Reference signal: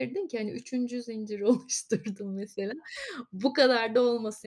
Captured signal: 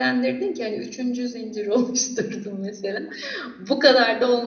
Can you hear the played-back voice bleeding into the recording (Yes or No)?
Yes